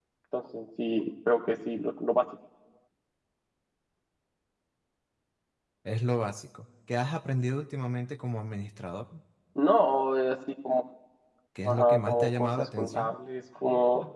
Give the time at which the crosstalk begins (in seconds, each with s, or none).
11.6 s